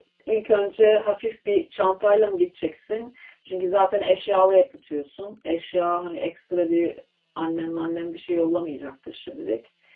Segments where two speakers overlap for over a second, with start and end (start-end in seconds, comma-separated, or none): none